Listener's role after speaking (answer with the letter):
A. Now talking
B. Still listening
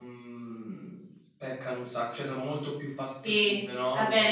A